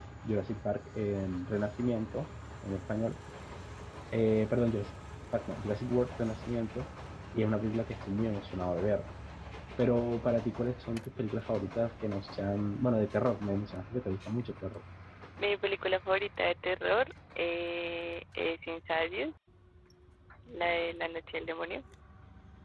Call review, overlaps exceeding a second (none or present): none